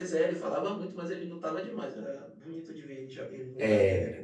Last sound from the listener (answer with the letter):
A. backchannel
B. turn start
B